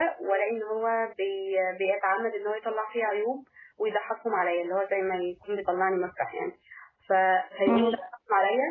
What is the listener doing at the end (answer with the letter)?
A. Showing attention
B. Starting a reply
A